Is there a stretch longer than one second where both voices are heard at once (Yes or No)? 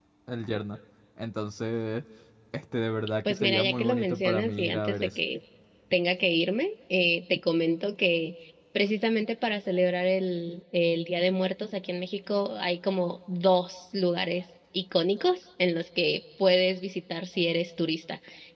Yes